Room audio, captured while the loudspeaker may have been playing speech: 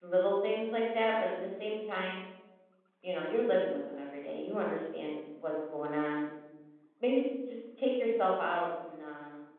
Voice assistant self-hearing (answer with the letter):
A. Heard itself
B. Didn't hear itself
B